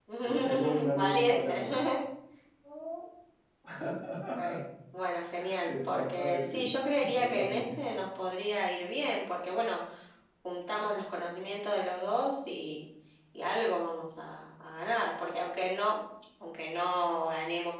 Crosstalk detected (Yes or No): Yes